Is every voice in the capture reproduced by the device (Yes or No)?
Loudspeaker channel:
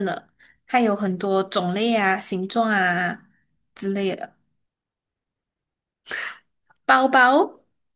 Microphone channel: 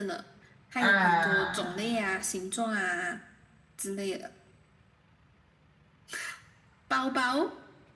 No